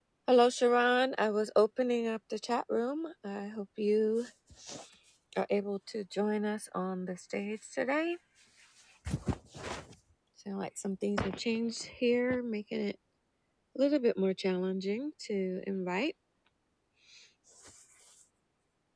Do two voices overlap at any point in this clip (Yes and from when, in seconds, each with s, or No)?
No